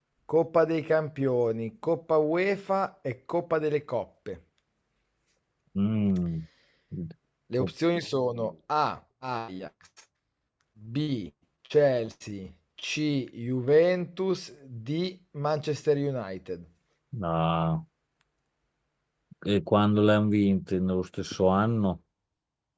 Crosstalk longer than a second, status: none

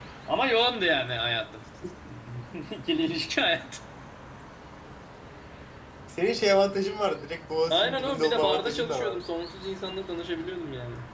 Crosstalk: present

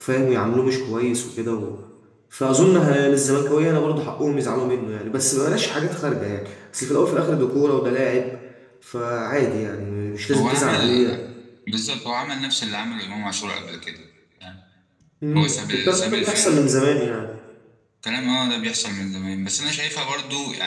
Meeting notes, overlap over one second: present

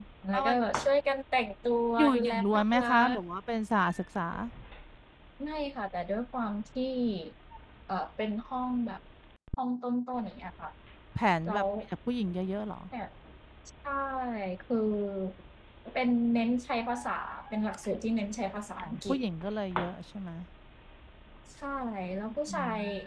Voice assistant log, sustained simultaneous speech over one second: present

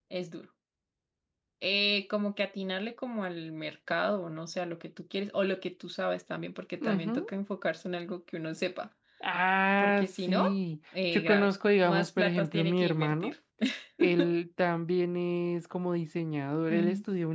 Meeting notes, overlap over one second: present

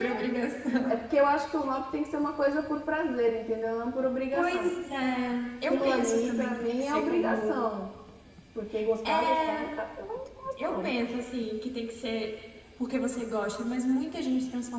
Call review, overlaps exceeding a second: present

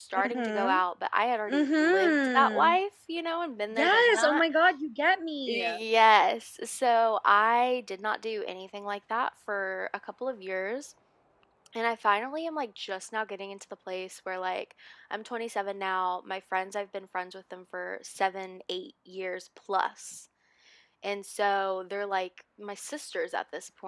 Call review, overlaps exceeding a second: present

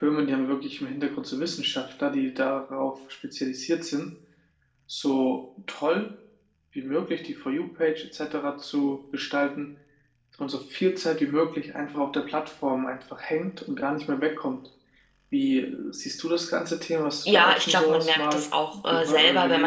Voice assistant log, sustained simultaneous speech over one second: present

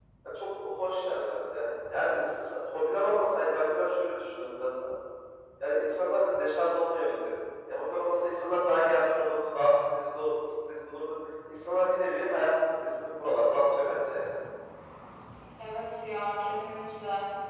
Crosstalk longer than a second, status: none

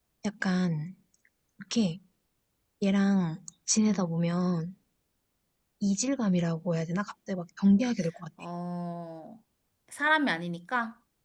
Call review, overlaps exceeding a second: none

